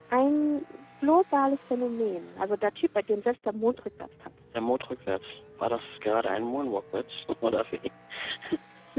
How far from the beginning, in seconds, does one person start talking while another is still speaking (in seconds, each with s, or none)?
none